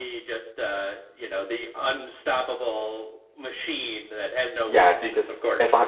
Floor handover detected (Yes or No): Yes